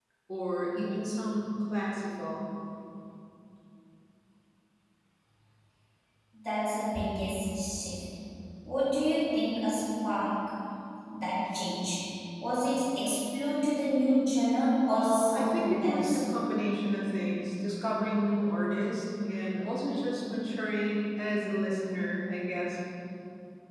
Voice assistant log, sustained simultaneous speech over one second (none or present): present